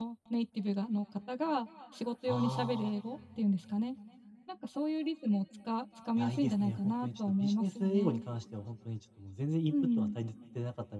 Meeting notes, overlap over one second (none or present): present